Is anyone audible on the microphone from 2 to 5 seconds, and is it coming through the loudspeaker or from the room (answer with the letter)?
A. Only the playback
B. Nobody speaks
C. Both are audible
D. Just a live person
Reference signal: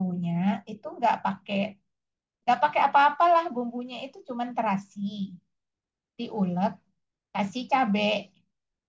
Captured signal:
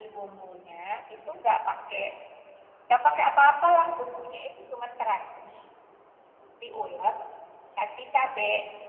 A